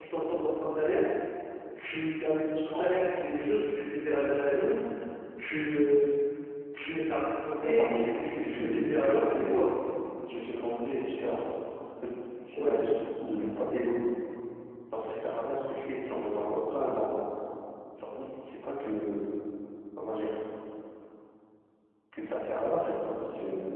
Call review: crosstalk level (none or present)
present